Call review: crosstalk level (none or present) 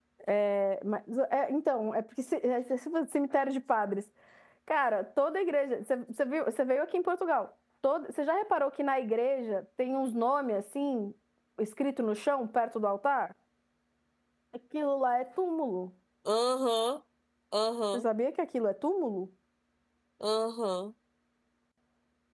none